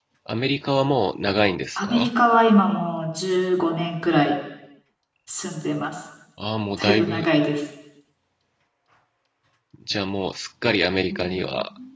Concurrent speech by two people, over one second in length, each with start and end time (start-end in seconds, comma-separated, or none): none